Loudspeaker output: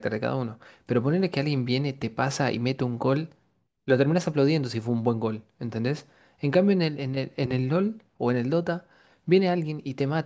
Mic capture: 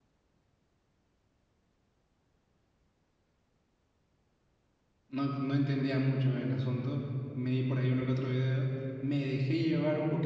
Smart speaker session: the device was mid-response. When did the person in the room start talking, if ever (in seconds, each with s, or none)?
5.1 s